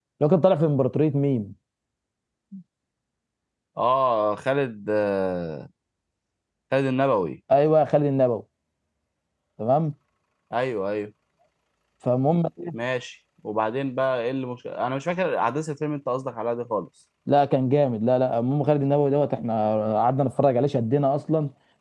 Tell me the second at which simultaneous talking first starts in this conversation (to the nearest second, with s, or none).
none